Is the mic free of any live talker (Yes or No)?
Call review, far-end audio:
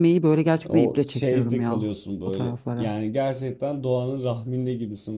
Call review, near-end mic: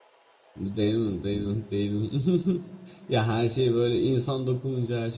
No